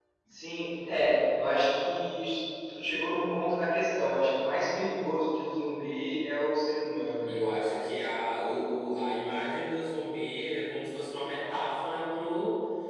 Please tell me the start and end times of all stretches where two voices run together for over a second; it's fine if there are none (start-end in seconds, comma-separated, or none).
none